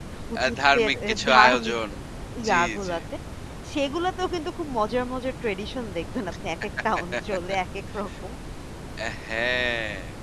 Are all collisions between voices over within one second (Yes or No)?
No